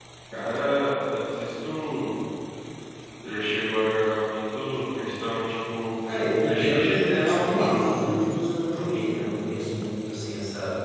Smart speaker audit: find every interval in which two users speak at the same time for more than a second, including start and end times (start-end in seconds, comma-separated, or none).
6.5-8.1